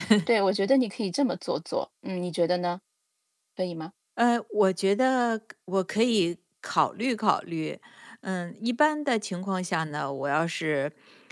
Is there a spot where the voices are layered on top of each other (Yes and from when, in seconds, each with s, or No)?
No